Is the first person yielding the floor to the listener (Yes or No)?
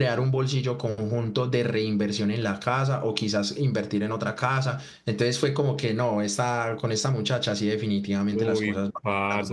Yes